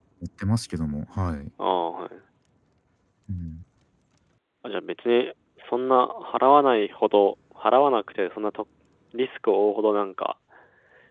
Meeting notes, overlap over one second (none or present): none